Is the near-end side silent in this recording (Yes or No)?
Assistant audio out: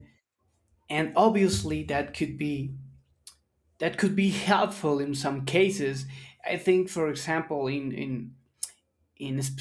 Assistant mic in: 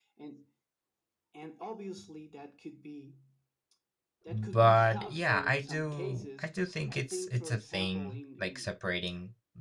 No